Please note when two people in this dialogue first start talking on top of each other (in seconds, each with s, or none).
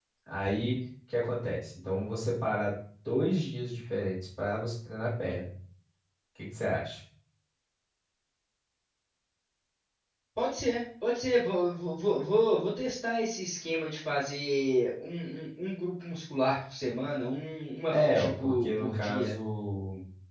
17.9 s